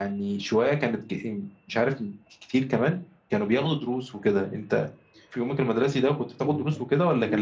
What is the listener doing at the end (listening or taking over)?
taking over